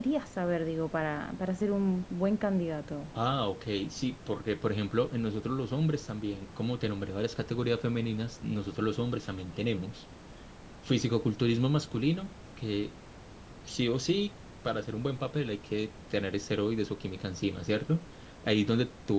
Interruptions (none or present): none